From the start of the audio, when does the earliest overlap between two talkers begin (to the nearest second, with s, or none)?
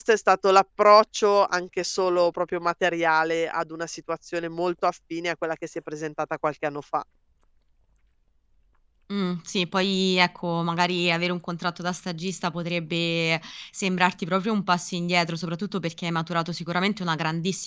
none